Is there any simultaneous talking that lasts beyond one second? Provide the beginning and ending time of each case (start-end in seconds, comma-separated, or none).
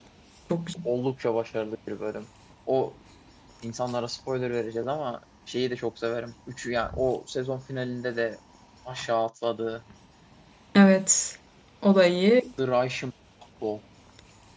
none